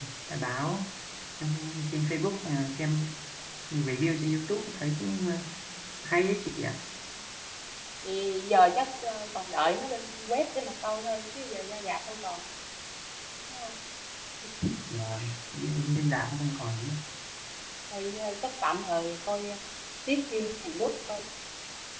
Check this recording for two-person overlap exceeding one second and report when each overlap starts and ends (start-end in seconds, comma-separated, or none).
none